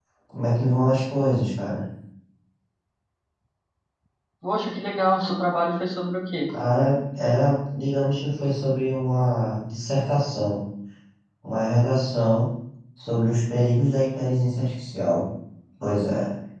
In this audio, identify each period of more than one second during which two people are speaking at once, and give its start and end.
none

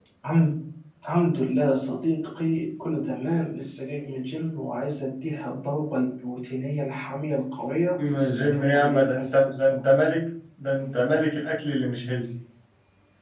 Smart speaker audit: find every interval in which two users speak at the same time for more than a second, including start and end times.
8.1-9.8

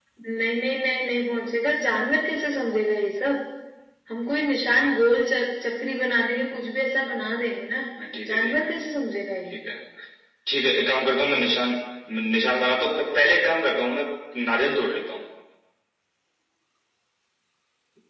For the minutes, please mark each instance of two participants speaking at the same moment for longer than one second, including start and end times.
none

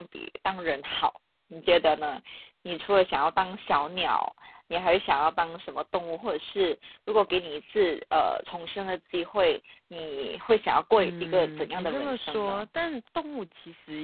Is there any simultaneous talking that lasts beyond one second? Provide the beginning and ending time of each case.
10.9-12.7

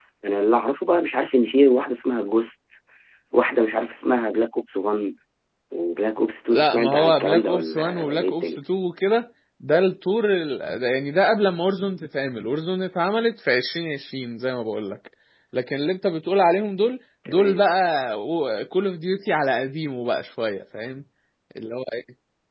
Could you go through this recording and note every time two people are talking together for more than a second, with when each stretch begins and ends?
6.5-8.6

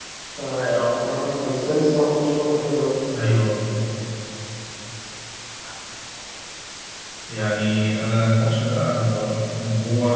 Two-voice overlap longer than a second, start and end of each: none

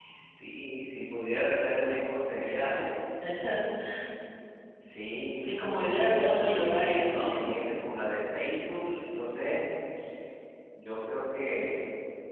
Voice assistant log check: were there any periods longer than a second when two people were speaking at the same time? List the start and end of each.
5.4-6.6

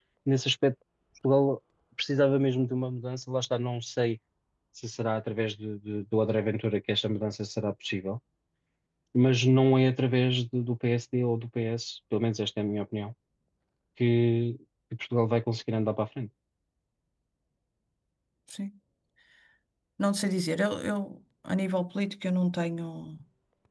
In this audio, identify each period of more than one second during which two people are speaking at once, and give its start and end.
none

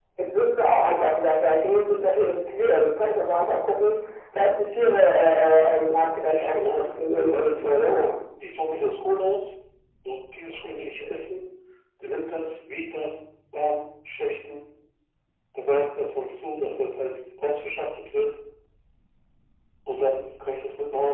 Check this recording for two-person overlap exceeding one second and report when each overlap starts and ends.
6.2-7.8

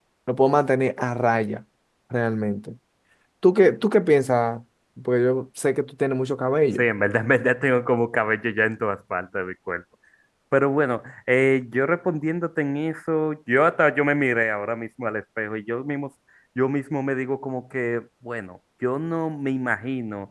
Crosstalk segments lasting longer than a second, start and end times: none

